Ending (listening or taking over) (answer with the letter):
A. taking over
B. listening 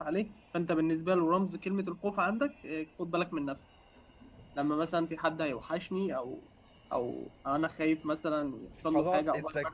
A